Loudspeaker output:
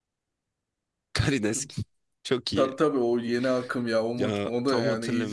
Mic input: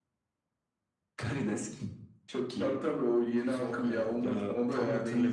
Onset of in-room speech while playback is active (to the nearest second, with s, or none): 3 s